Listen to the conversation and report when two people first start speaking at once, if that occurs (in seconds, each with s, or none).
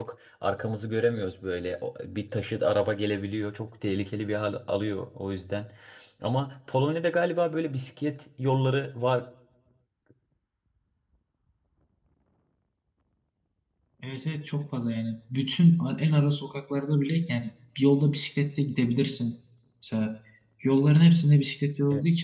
none